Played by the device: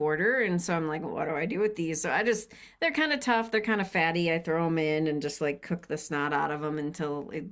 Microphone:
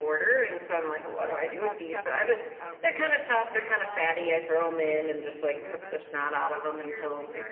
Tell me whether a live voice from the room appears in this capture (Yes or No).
Yes